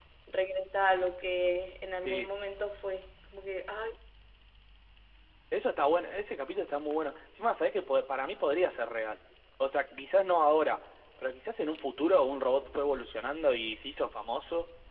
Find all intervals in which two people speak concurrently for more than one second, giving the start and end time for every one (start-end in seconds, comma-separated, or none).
none